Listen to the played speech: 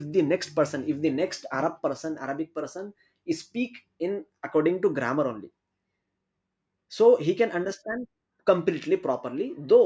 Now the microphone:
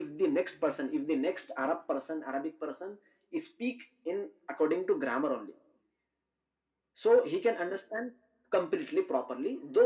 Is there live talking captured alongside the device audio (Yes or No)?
No